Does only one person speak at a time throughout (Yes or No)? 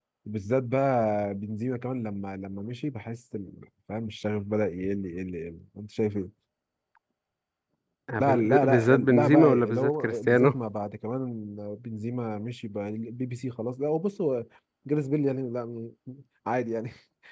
No